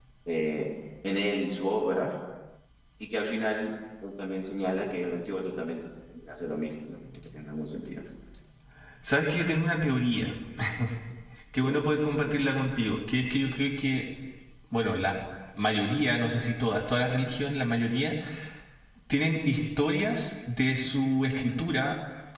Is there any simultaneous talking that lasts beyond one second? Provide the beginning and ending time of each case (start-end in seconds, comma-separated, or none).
none